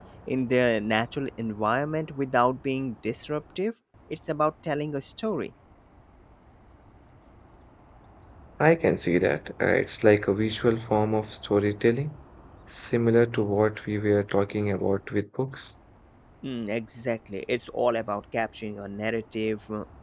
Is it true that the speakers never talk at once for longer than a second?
Yes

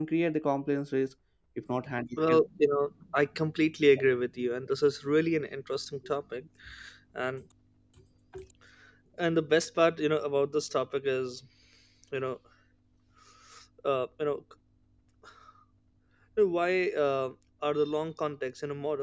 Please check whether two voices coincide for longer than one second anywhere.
No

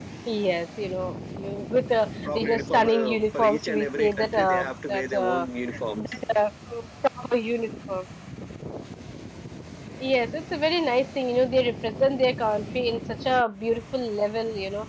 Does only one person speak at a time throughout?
No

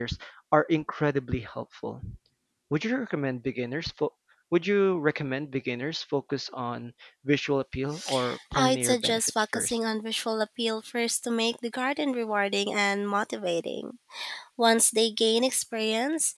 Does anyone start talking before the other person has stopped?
Yes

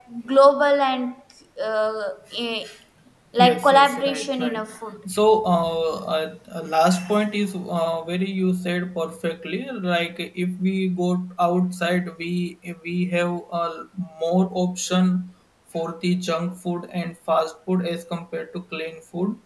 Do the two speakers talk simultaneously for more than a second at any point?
Yes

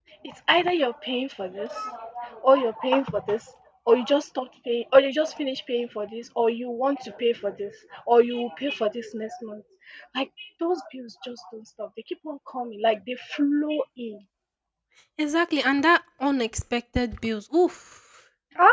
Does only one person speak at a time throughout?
Yes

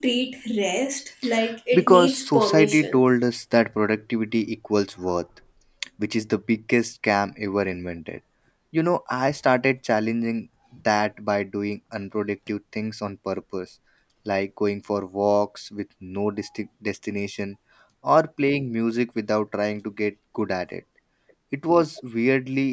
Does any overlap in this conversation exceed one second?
Yes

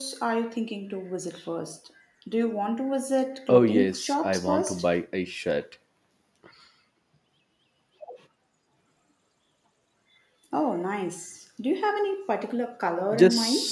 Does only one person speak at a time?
No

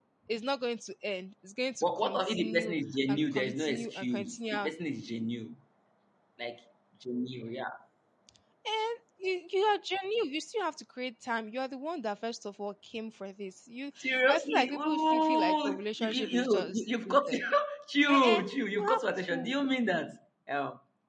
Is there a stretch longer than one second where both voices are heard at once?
Yes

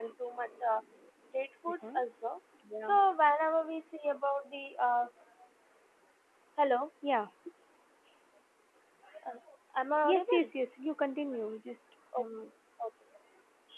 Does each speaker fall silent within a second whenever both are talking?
Yes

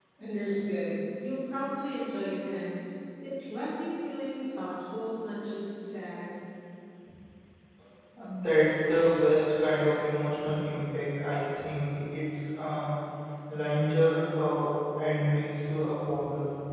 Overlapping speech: No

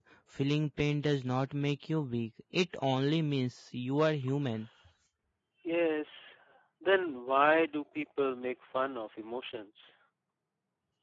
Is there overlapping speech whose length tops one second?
No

